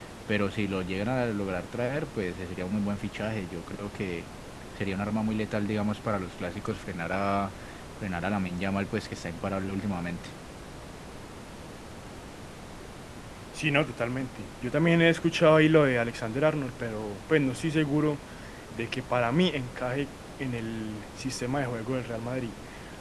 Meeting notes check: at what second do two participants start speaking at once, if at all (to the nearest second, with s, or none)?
none